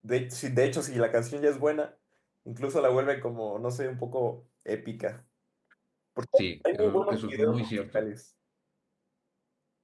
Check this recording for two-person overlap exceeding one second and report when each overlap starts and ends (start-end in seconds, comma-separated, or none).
6.7-8.0